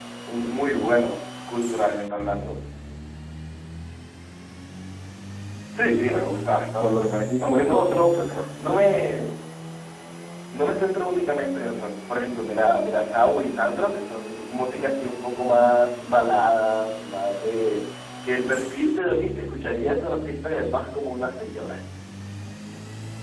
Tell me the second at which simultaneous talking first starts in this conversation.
6.8 s

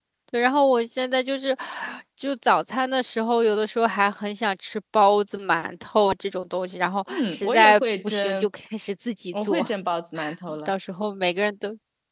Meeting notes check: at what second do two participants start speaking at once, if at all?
7.1 s

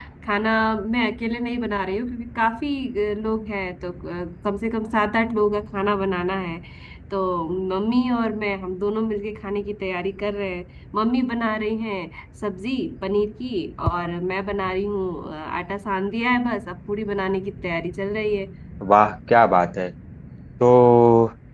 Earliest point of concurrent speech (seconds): none

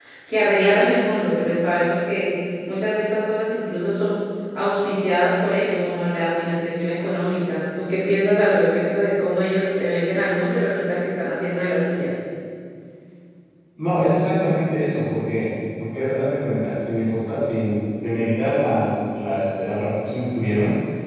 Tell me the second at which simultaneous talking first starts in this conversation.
none

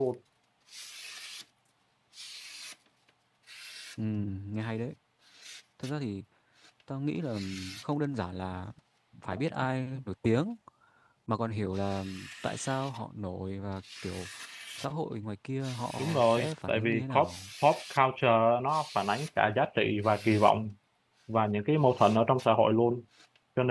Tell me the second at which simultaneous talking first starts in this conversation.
16.0 s

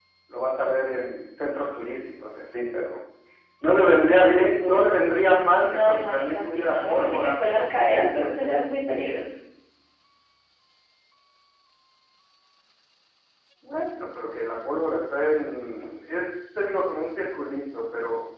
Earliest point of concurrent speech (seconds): 5.6 s

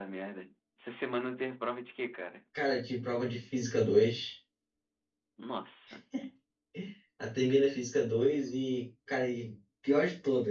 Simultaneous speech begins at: none

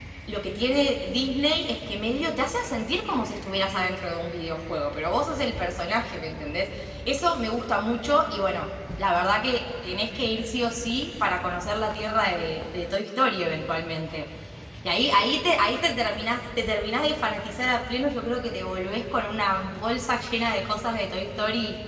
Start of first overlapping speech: none

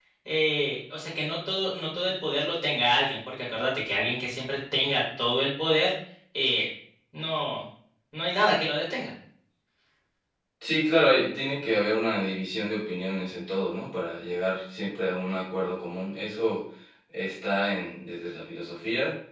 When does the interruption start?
none

